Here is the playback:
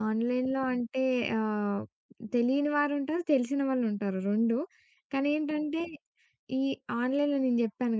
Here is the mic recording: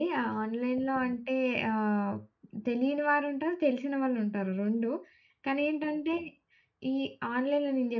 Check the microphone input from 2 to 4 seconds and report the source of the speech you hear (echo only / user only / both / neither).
echo only